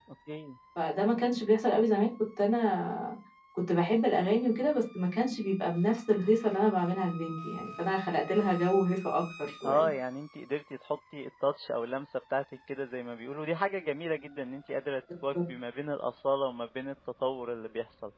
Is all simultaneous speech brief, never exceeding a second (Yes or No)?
Yes